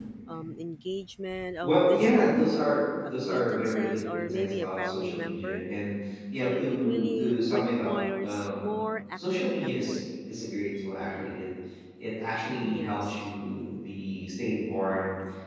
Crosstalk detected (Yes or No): Yes